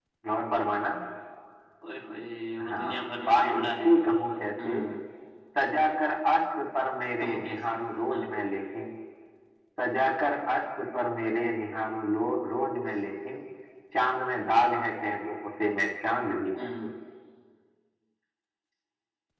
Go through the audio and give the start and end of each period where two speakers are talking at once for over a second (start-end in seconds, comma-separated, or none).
2.6-3.9